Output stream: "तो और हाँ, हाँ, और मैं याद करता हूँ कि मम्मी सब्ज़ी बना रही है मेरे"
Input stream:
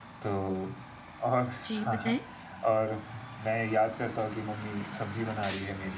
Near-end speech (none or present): present